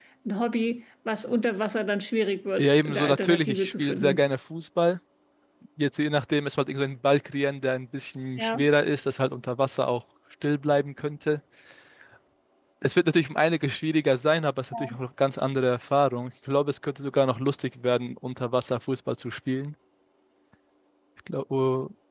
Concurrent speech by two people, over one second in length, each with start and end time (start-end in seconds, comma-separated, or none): 2.6-4.2